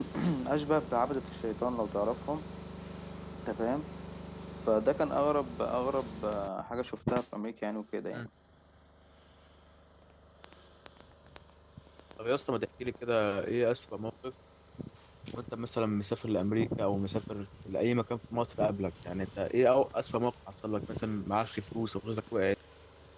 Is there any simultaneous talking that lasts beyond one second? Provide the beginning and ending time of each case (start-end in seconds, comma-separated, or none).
none